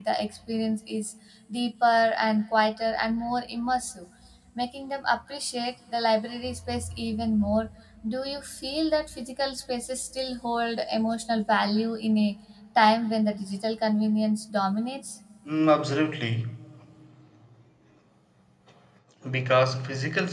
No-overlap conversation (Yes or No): Yes